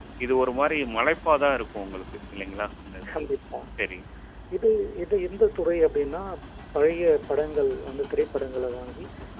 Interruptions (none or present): none